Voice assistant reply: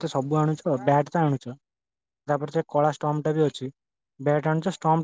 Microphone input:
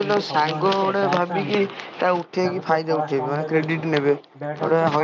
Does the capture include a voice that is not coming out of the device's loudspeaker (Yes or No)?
Yes